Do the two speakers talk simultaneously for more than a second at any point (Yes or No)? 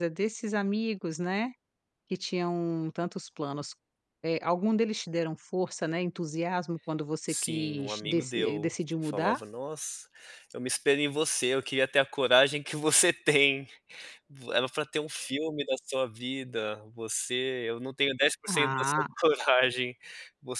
Yes